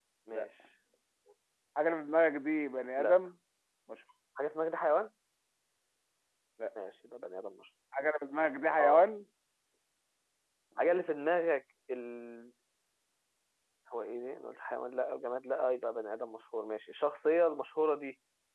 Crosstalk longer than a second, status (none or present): none